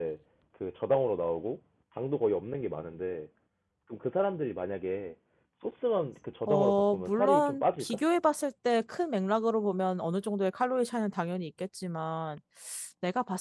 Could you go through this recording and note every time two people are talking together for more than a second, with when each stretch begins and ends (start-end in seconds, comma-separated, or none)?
6.5-8.0